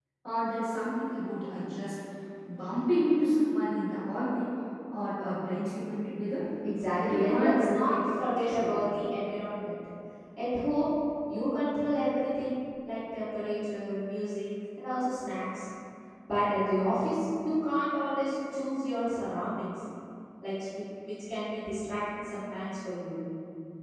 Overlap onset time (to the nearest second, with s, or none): 7 s